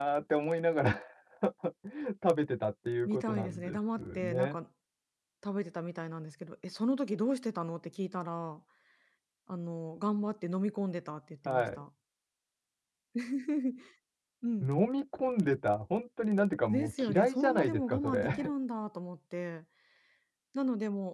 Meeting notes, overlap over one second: present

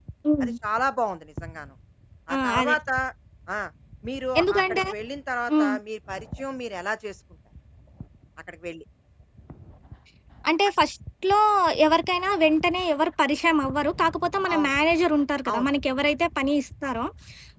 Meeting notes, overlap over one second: none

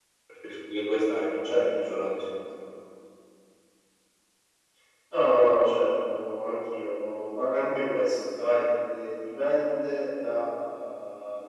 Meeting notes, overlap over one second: none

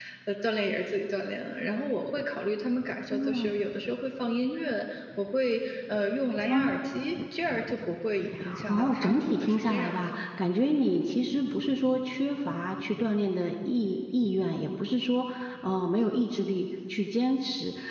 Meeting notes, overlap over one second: present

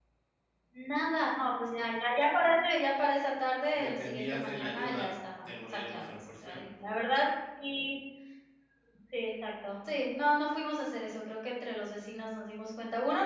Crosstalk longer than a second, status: present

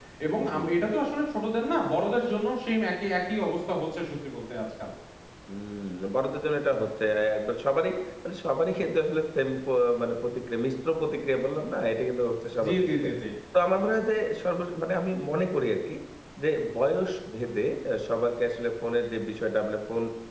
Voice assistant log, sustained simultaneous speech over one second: none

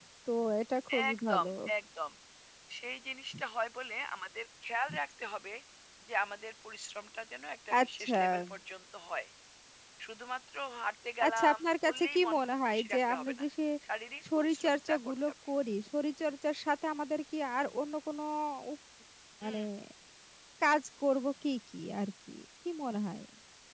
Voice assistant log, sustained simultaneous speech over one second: present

